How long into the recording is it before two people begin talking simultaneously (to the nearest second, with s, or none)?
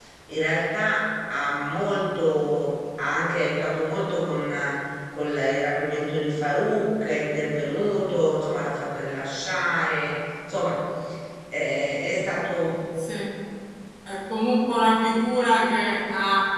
none